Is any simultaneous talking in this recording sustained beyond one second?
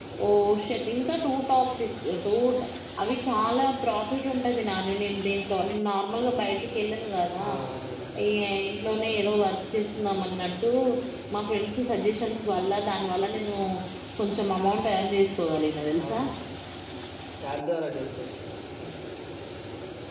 No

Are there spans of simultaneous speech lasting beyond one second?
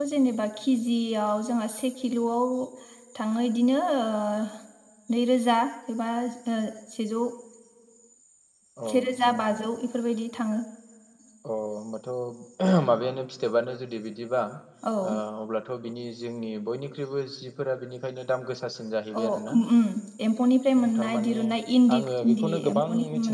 Yes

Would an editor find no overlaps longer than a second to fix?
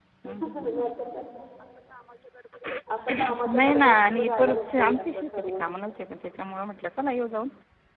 No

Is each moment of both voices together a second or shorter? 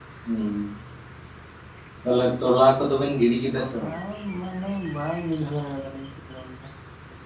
Yes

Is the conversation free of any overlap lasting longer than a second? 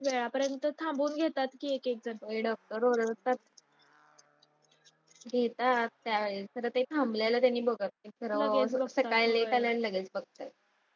No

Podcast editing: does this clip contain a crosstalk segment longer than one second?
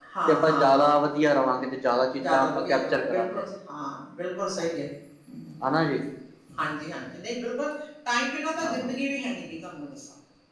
Yes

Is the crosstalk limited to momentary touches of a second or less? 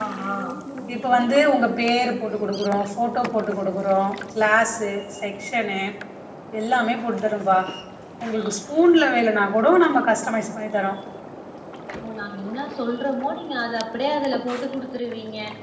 Yes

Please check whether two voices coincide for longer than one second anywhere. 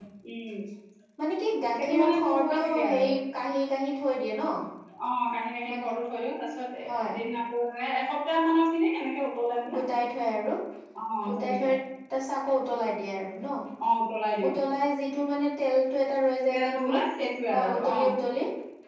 Yes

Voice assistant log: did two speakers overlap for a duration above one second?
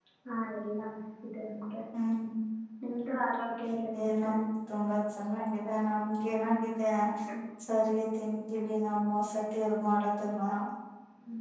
No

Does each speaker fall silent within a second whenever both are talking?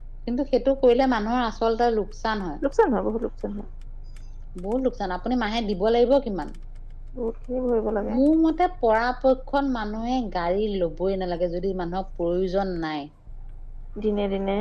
Yes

